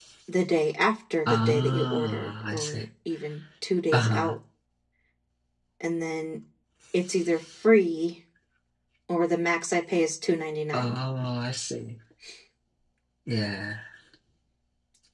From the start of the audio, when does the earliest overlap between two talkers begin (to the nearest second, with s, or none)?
1 s